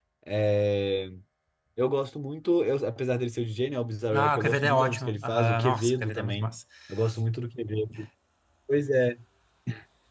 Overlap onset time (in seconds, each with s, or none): 4.1 s